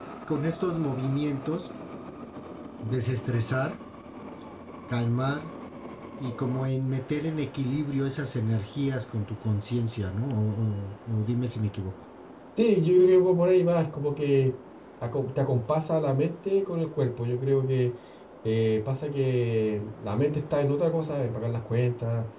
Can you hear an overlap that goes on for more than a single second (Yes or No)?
No